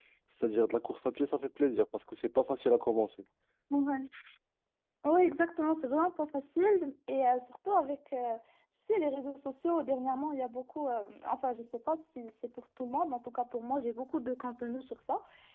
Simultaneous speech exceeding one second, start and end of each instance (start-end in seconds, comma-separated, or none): none